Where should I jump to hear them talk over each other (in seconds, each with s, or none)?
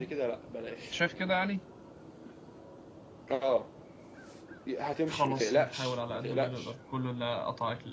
5.1 s